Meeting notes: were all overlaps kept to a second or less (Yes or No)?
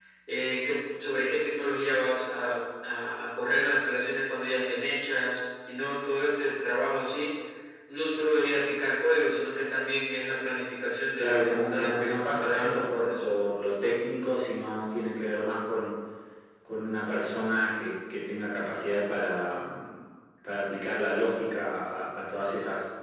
No